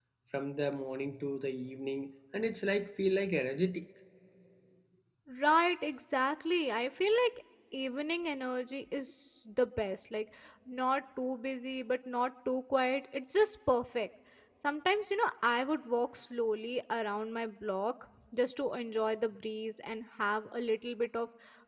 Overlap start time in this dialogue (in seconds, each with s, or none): none